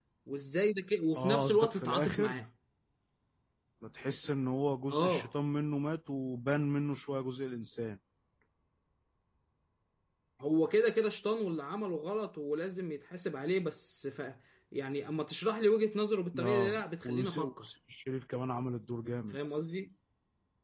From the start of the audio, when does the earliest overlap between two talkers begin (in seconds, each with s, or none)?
1.2 s